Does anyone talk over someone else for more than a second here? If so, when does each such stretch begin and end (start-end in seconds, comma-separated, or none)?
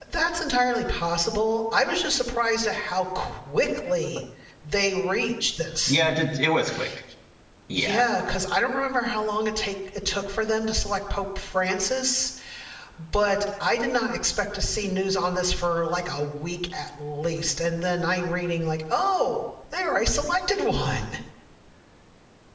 none